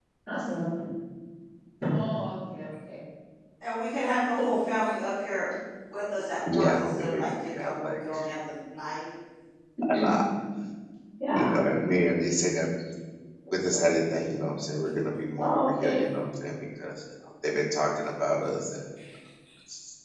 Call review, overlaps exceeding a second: present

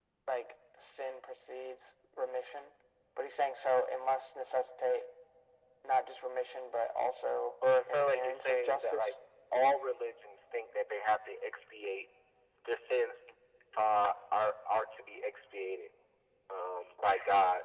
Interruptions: present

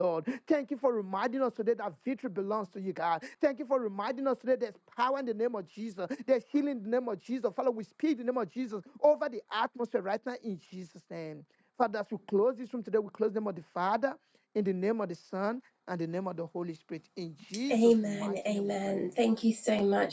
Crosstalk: present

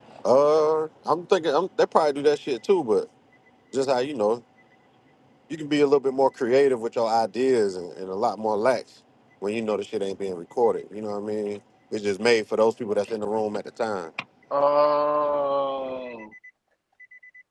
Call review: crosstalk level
none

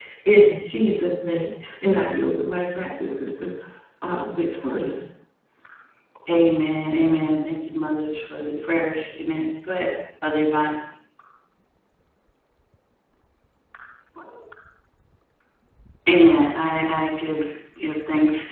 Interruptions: none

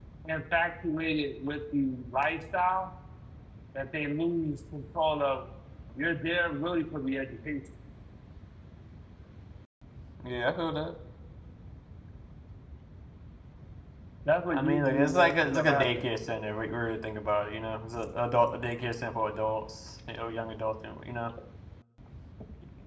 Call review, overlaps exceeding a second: present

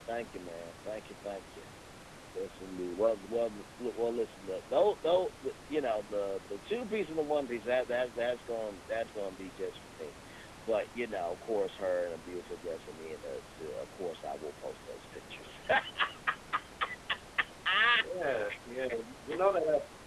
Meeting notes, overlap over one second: none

